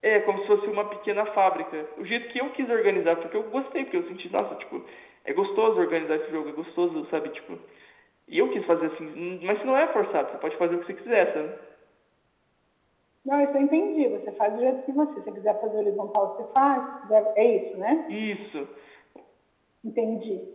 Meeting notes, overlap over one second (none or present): none